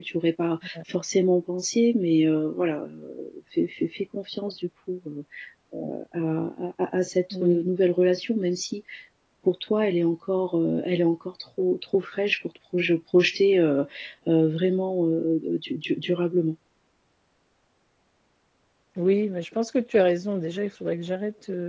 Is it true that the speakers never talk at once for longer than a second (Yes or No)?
Yes